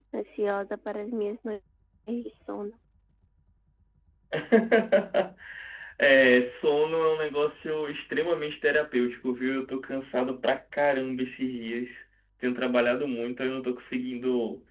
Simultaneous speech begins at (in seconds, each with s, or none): none